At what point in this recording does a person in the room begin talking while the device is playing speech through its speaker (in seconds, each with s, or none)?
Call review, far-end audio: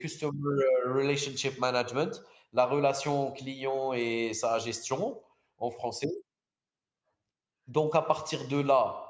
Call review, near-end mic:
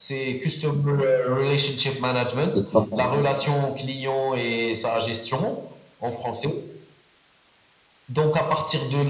2.5 s